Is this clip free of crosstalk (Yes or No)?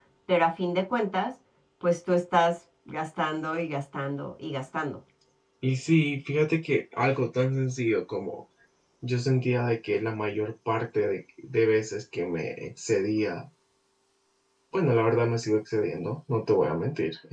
Yes